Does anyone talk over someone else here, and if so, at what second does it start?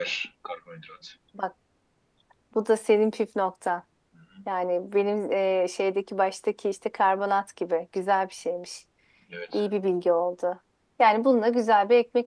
none

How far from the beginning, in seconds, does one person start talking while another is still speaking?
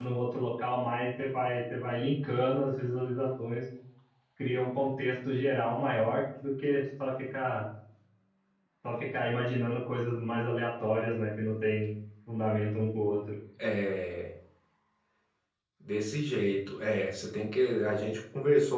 none

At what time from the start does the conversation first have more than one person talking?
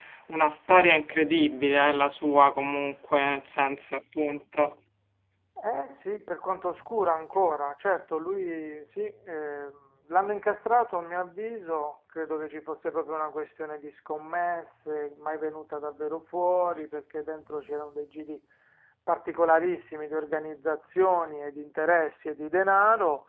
none

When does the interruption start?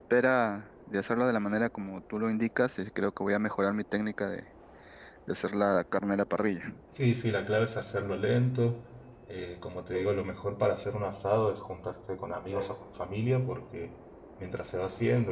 none

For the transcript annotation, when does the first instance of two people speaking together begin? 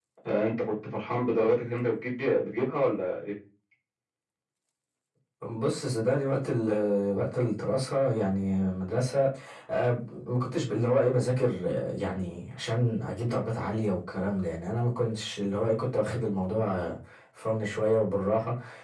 none

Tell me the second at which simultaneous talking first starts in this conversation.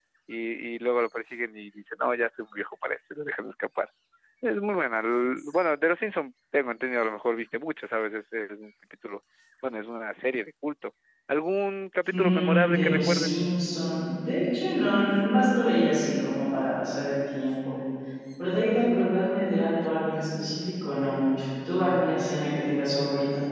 12.1 s

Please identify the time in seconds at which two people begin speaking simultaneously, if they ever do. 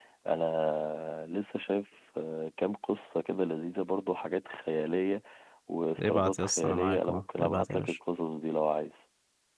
6.0 s

